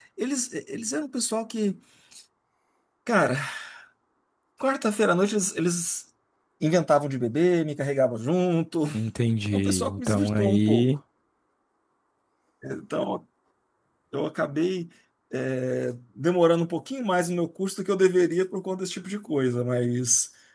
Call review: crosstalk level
present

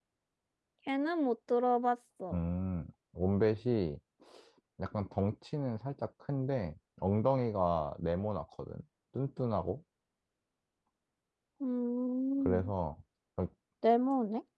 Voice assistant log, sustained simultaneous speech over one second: none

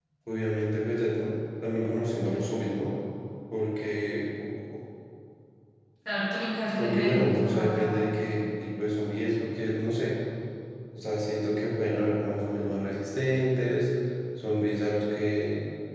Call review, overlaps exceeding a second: present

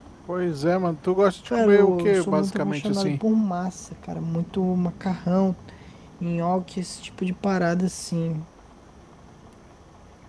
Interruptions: present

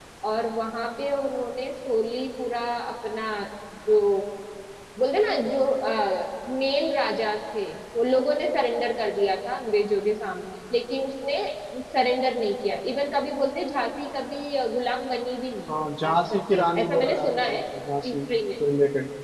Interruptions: present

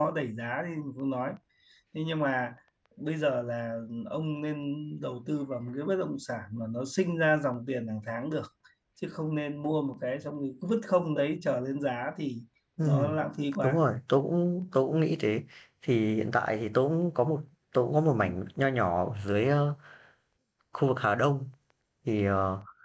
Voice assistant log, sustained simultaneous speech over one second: none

